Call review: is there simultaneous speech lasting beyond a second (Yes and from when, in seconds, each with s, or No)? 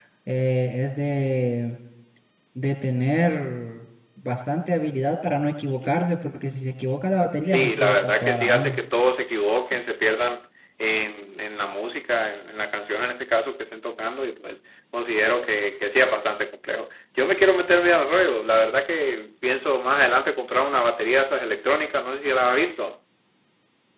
Yes, from 7.5 s